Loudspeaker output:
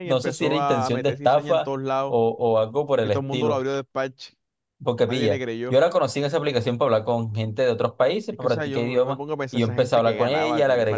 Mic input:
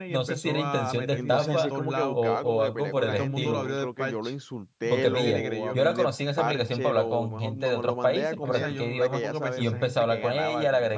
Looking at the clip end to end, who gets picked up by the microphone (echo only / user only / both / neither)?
both